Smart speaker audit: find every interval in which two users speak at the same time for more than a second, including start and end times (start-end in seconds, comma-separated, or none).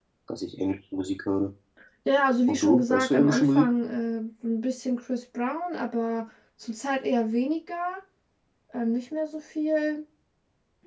2.5-3.7